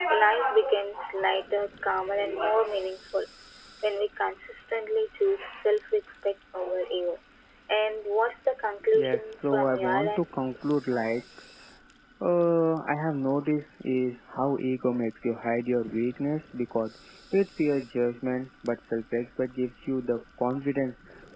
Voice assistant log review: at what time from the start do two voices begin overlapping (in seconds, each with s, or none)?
8.9 s